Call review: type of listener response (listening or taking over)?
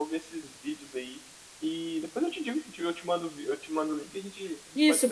taking over